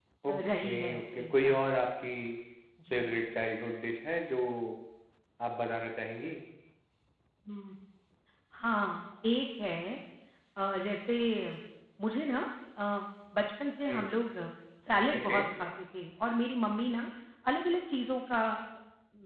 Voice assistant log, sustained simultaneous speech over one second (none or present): present